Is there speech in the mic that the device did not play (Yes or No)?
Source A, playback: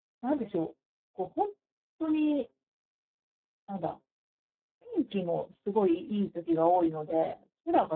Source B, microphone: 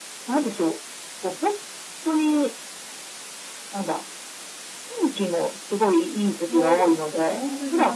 Yes